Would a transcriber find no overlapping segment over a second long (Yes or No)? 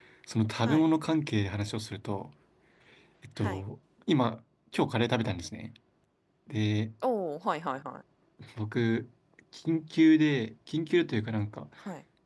Yes